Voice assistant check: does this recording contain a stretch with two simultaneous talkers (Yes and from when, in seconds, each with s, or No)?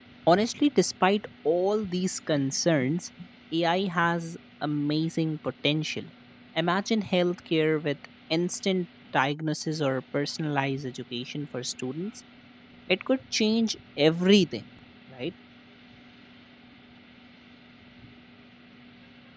No